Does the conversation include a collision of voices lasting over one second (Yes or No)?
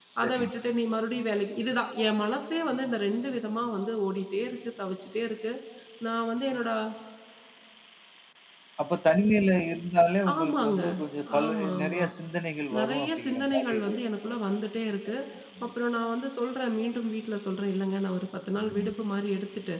Yes